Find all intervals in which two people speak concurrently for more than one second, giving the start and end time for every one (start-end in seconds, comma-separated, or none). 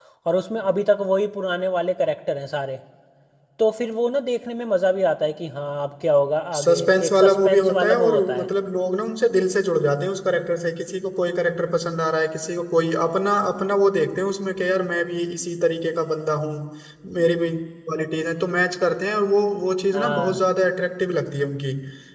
6.6-8.5